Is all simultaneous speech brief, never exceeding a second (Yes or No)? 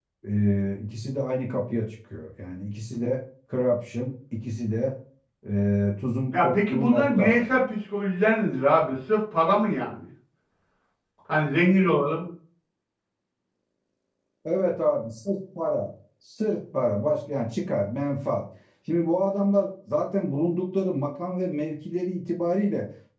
No